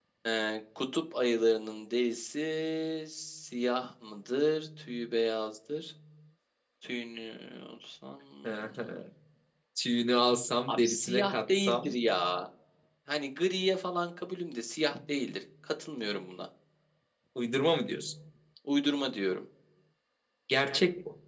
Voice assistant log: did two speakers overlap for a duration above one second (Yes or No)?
Yes